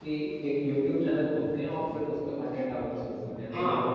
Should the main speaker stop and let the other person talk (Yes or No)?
Yes